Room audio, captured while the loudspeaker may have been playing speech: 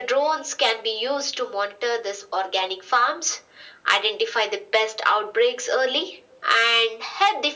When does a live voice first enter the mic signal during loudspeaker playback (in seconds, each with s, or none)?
none